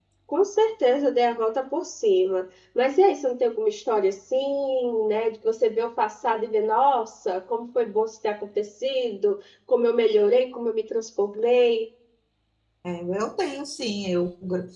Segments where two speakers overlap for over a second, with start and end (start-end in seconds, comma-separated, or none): none